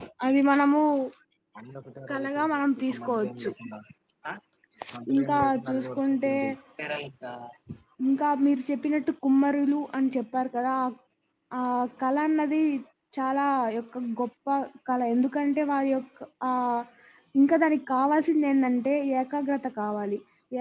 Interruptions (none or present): present